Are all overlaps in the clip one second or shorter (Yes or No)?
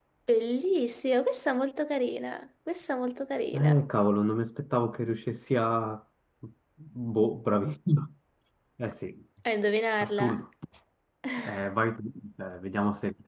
Yes